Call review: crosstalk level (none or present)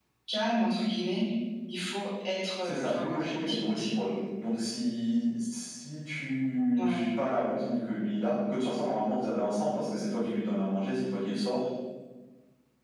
present